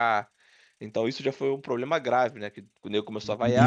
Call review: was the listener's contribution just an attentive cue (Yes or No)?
No